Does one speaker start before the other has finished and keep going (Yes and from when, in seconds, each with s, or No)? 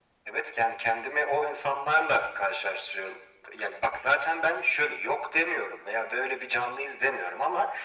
No